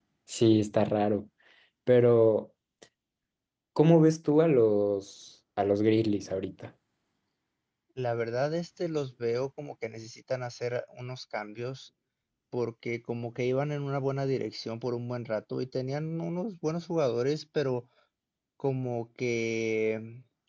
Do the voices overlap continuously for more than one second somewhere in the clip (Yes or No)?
No